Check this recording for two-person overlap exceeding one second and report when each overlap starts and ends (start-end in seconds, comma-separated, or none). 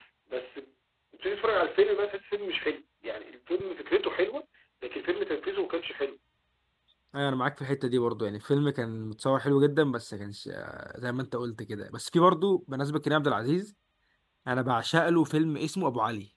none